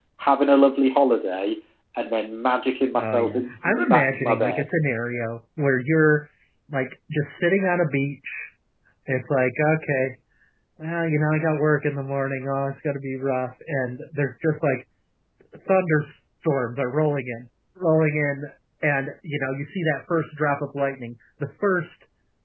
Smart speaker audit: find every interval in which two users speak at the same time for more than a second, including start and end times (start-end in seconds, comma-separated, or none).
3.0-4.7